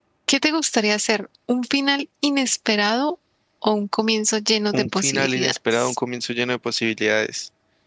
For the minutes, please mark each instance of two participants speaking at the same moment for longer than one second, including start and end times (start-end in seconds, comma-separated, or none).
4.7-6.0